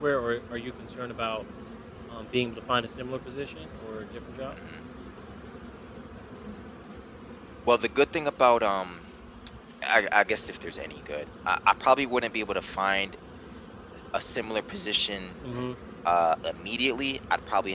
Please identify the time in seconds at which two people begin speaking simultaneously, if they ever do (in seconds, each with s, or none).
none